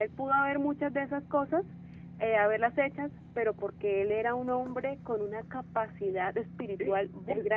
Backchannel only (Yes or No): No